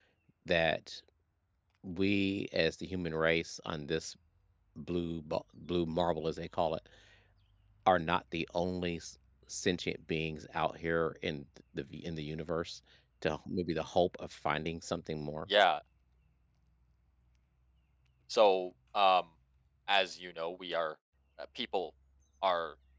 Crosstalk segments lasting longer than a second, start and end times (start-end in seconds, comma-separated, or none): none